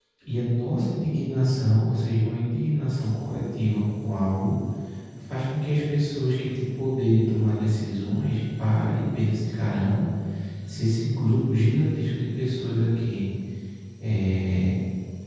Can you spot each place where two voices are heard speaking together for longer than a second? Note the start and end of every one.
none

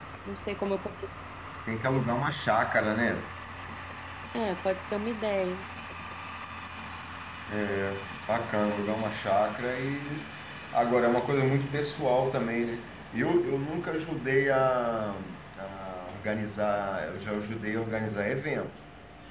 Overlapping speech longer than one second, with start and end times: none

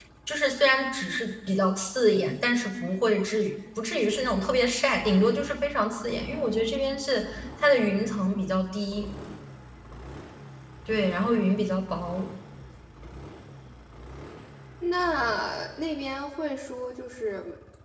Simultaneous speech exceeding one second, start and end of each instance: none

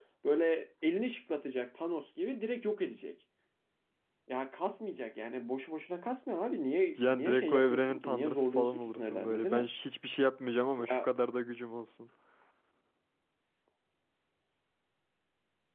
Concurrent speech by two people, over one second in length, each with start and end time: 7.0-9.7

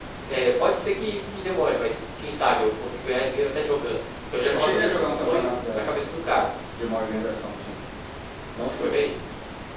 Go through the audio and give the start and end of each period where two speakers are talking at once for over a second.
4.5-6.0

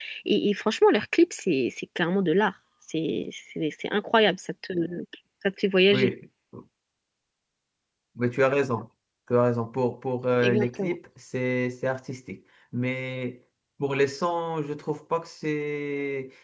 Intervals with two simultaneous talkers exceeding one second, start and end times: none

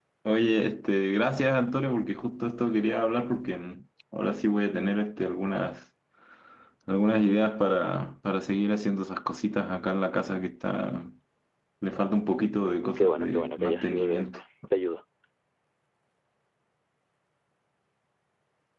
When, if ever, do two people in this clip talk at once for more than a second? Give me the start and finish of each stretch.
12.9-14.4

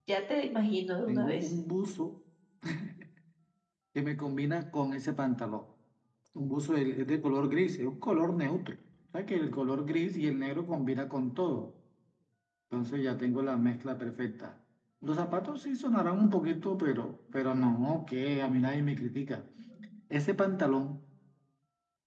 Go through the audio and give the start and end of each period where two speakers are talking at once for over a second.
none

